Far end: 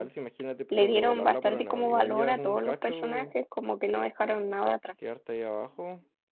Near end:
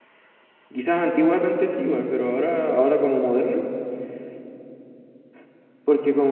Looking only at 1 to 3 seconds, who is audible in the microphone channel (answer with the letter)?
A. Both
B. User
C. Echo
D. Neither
B